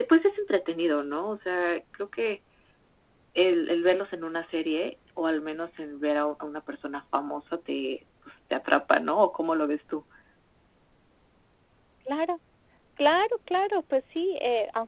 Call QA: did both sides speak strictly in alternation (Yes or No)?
Yes